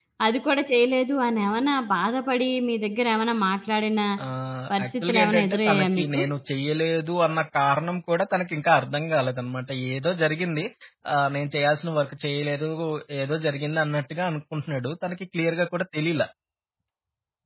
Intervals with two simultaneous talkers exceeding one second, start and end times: 4.8-6.2

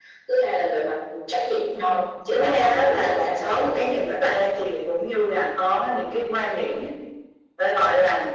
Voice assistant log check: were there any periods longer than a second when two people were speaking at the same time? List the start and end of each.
2.3-3.9

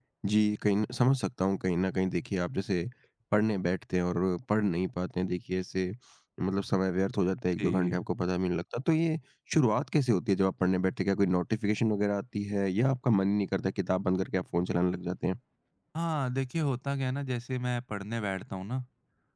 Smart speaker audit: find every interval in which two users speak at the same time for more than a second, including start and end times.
none

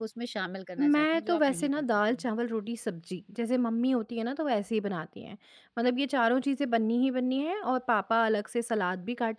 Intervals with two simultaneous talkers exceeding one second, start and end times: 0.8-2.3

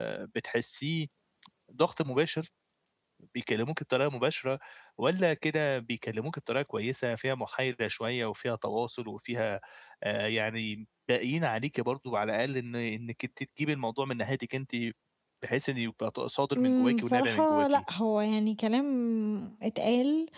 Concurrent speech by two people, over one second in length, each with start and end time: 16.6-17.8

